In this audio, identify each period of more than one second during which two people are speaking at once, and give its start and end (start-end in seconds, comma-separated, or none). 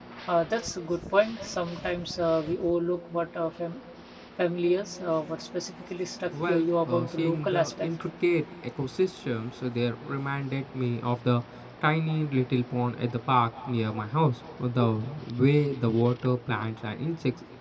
6.3-7.9